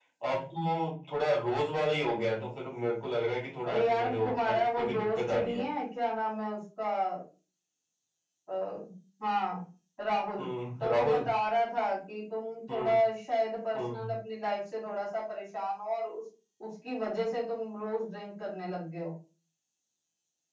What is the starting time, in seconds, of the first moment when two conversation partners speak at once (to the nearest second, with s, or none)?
4 s